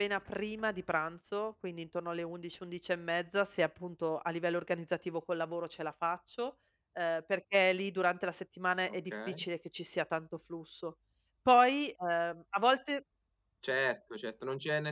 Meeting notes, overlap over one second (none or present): none